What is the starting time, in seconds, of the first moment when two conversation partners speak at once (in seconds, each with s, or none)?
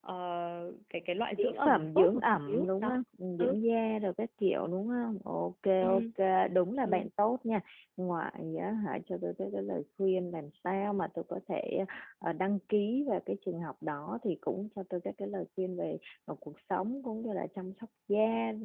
1.4 s